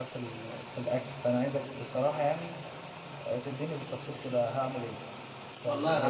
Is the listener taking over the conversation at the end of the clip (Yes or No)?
Yes